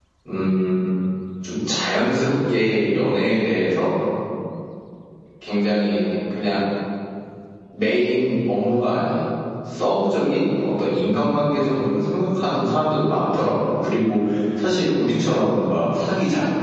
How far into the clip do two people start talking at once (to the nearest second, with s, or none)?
none